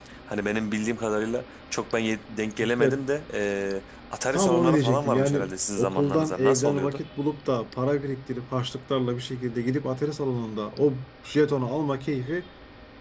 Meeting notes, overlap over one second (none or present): present